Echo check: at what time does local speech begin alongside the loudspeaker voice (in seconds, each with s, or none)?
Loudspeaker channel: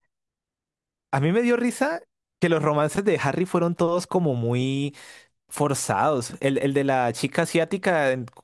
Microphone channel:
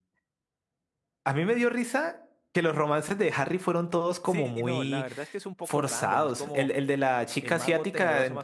4.2 s